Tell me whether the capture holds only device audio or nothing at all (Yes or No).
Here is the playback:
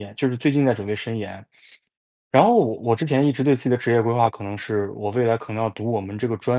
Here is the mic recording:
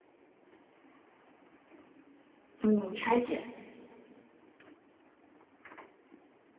No